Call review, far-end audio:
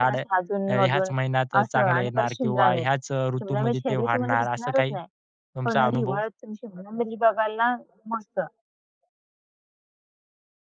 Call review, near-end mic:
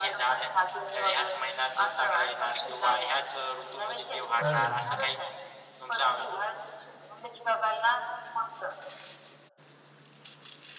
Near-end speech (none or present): present